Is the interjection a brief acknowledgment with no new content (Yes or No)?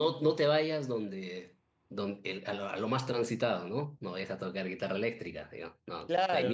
No